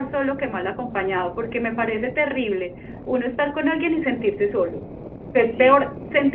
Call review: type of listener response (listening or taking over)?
listening